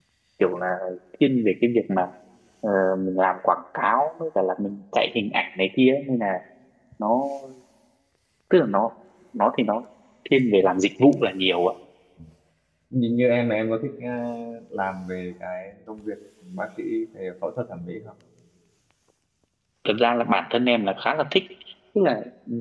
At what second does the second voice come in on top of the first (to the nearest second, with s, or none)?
none